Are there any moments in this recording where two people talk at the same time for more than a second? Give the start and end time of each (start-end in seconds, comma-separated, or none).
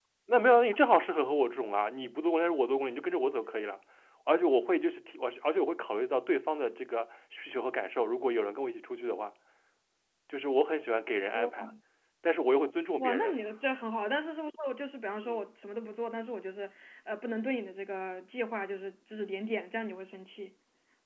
none